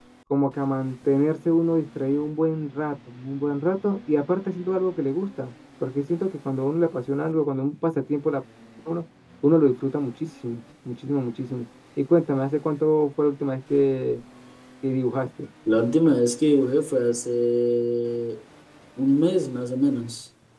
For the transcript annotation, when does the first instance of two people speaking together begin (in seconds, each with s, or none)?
none